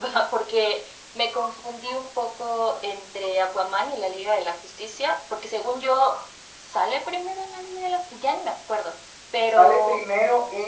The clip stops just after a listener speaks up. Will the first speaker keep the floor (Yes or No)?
No